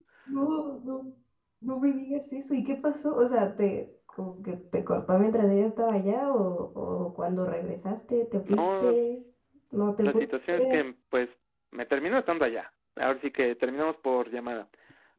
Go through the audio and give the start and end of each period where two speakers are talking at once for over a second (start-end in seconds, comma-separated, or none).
none